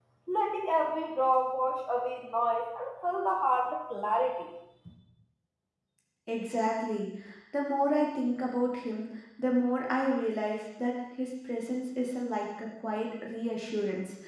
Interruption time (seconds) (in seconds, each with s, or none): none